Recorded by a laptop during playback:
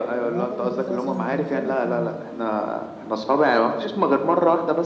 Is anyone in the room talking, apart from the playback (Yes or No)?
Yes